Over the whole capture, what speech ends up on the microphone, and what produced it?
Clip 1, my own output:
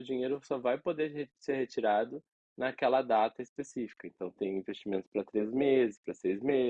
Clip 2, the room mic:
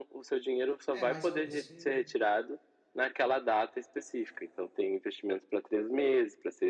both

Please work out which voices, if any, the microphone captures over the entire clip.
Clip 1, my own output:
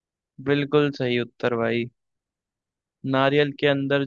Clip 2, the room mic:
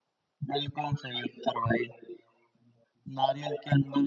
echo only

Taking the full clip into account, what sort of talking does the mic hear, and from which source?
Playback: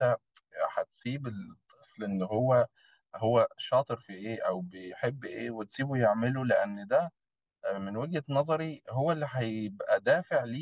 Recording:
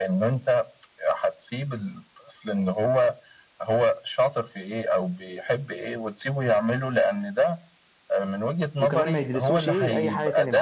both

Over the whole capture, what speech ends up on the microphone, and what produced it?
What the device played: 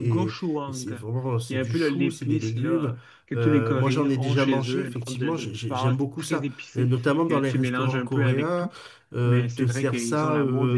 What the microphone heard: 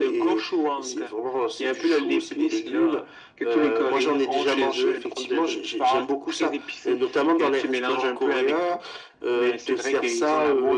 echo only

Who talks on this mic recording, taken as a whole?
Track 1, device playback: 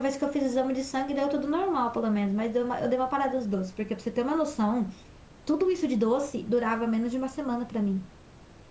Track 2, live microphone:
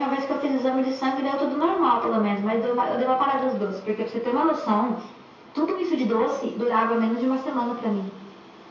echo only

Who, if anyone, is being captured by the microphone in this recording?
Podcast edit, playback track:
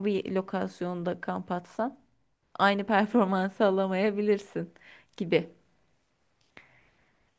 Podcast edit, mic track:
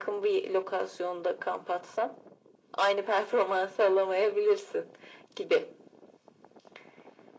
echo only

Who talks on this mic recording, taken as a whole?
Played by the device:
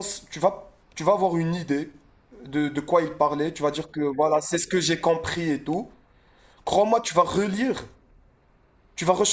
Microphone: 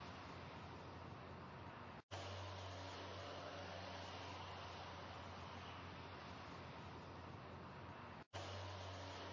neither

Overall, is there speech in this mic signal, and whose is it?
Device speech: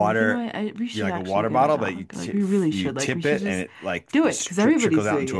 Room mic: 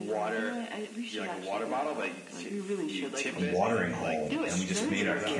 both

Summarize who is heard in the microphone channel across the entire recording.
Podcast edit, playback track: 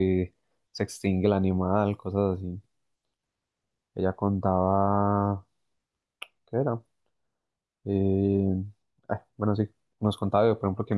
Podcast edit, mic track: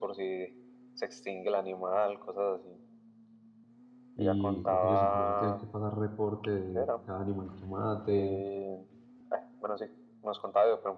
both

